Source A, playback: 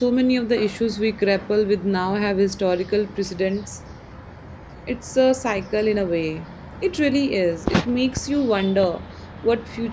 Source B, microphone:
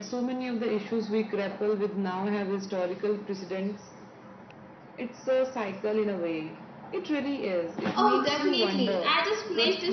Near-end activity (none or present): present